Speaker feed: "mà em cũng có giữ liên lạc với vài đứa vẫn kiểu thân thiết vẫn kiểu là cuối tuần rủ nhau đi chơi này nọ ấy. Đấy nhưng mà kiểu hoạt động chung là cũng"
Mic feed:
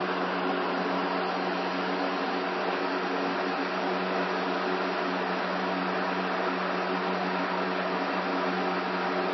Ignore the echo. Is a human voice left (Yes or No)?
No